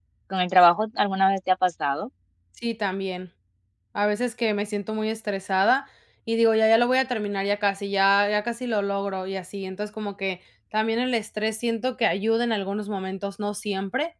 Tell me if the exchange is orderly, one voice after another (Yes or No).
Yes